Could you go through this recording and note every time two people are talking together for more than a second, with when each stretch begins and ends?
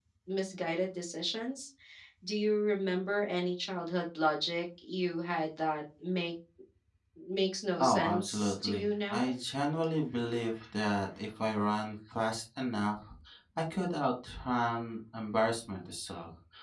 7.8-9.3

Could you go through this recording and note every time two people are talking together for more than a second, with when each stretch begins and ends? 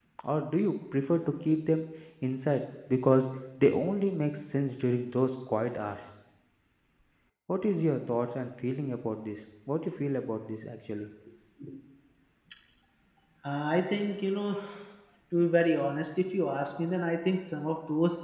none

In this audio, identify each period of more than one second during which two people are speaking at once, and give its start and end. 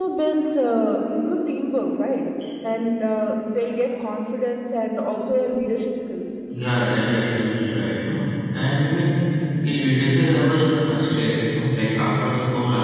none

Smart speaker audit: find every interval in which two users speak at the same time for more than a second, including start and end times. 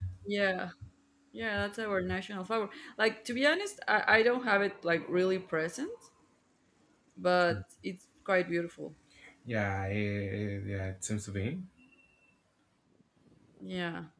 none

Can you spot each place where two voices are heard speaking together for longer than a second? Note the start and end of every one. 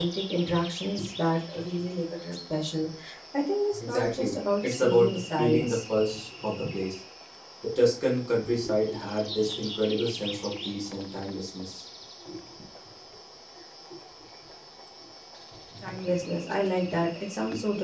3.9-5.8

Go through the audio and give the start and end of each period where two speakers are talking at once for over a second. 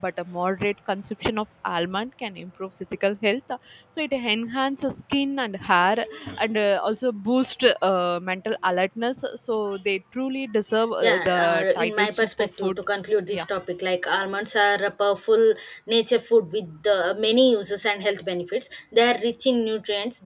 11.0-12.8

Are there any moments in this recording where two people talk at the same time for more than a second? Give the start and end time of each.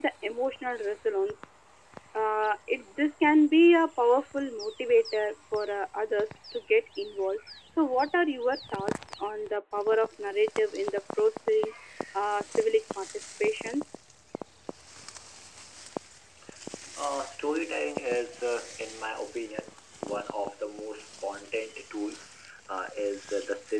none

